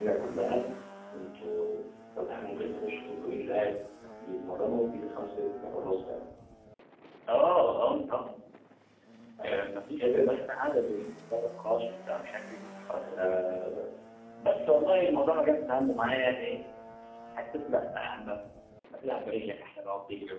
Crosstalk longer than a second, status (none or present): none